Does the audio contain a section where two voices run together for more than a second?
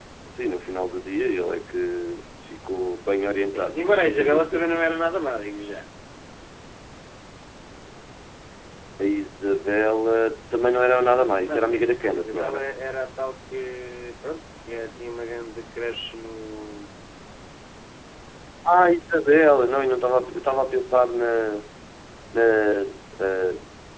Yes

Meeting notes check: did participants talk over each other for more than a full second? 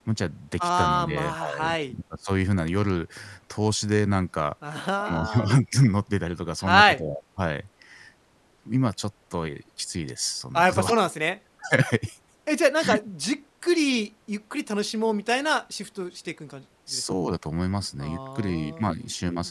Yes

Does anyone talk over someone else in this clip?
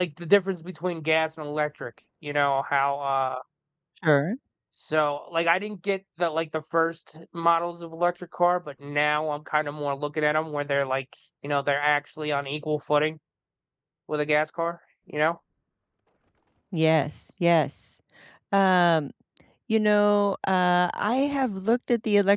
No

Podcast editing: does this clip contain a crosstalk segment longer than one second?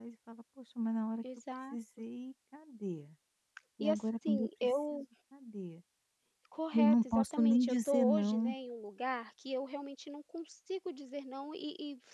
Yes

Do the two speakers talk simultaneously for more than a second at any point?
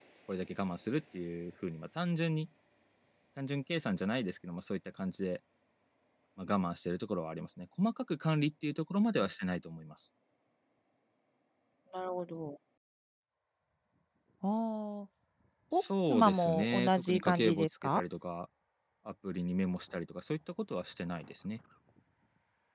Yes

